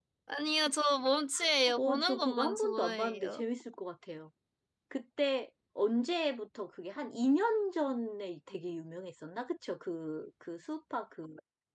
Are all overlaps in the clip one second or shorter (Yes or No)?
No